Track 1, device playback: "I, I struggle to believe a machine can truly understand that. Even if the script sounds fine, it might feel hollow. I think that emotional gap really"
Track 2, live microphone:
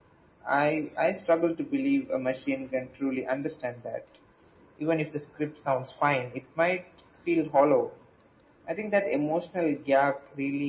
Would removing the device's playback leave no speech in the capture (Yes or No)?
Yes